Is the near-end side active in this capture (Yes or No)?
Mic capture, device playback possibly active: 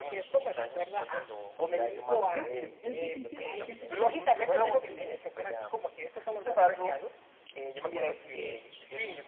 Yes